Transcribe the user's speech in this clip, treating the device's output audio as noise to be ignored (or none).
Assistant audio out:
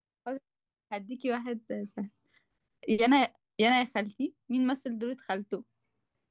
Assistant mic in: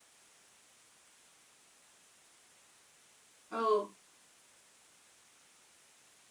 اه